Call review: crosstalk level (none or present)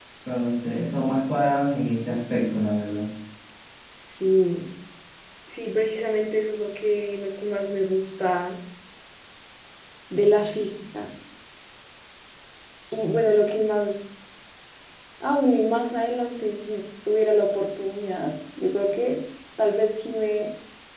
none